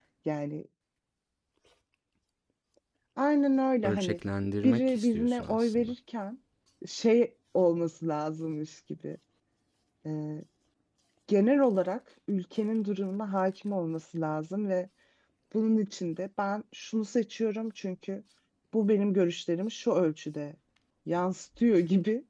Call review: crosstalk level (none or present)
present